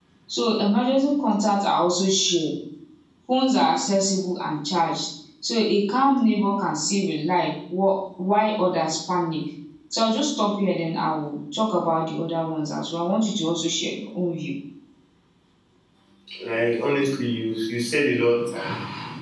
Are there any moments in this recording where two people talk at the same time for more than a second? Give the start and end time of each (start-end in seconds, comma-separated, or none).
none